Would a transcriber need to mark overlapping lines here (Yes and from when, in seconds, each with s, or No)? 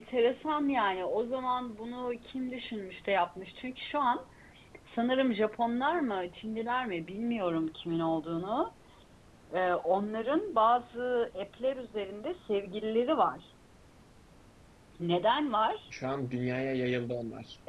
No